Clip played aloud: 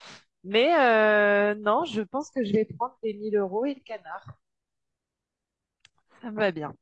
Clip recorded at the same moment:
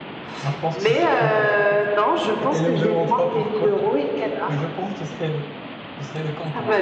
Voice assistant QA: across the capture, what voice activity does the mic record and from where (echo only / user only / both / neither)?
both